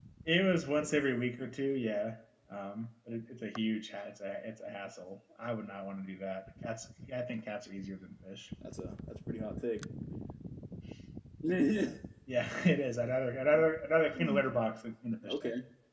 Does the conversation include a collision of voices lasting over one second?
No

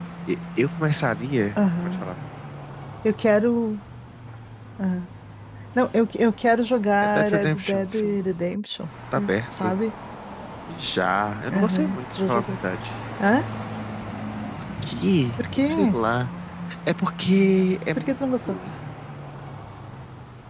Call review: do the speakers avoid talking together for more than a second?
No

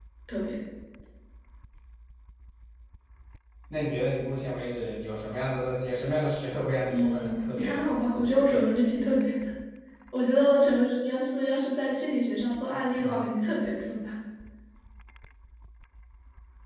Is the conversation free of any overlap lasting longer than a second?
No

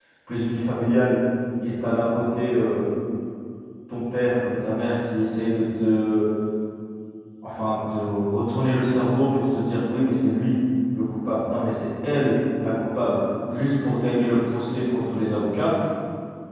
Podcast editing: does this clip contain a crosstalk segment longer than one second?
No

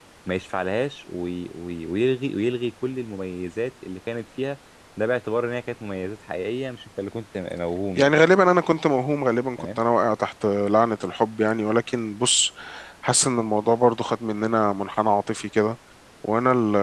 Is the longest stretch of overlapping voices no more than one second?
Yes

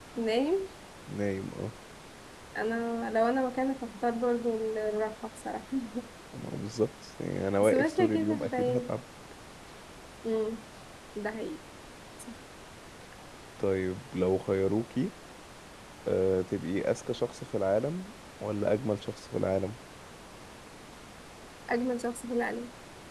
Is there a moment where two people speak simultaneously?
Yes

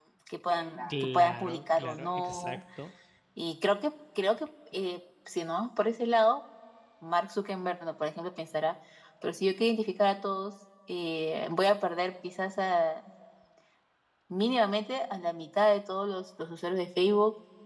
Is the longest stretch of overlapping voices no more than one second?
No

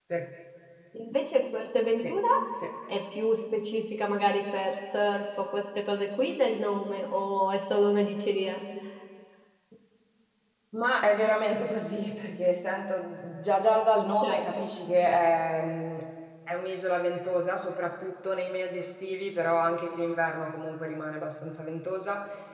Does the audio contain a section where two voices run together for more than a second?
No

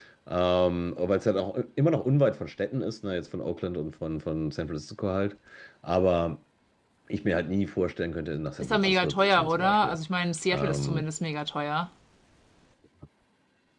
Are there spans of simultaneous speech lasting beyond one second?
Yes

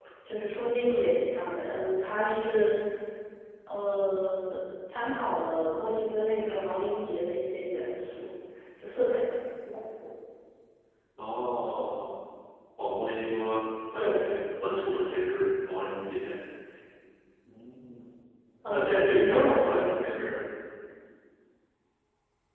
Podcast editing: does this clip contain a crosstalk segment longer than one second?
Yes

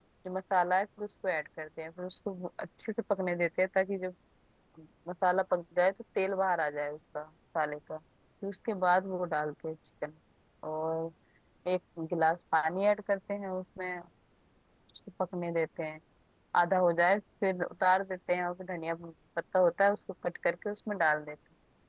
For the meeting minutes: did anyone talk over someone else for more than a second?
No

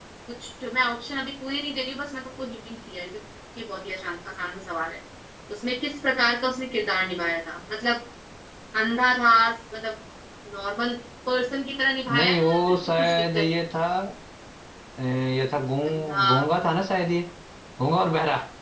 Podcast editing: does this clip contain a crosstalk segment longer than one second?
Yes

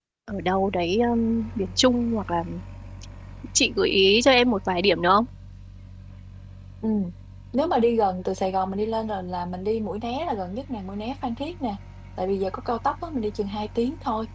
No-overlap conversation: Yes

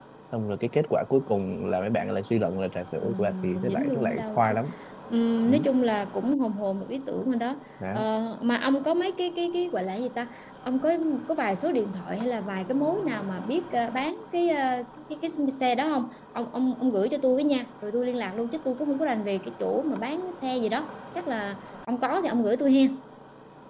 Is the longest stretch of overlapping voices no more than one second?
No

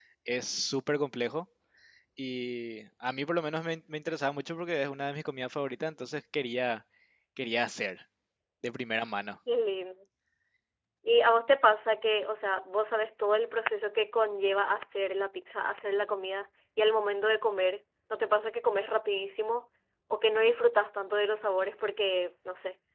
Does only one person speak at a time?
Yes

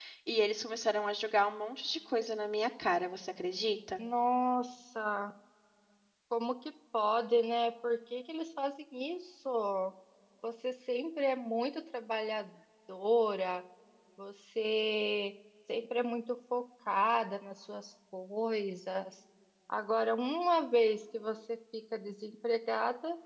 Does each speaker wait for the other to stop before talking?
Yes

